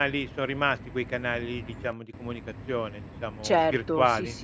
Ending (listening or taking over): taking over